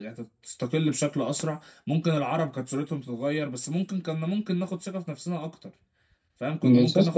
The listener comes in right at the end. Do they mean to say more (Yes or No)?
No